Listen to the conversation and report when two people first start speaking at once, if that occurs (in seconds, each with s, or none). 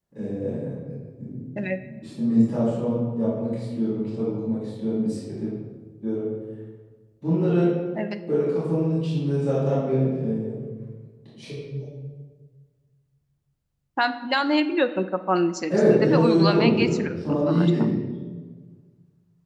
15.7 s